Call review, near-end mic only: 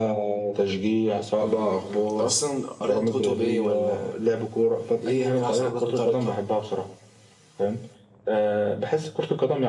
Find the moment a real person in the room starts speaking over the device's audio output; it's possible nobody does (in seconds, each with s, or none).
none